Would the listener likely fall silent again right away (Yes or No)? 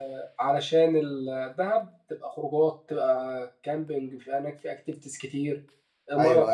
Yes